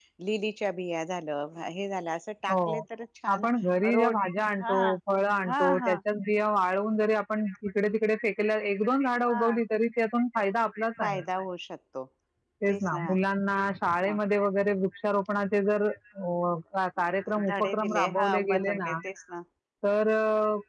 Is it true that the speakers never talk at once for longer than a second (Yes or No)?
No